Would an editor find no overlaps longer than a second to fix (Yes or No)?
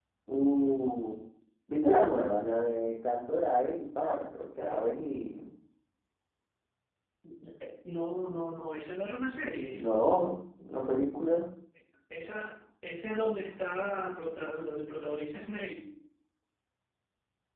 Yes